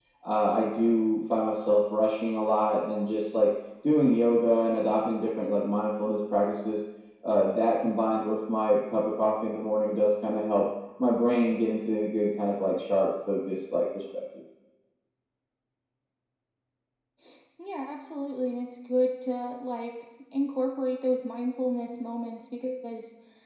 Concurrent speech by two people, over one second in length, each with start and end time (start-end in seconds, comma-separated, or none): none